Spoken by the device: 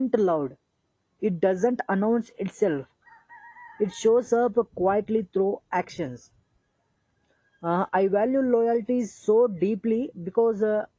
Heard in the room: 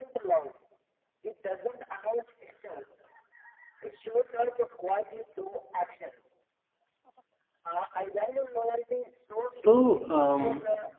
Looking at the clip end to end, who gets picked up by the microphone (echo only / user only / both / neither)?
both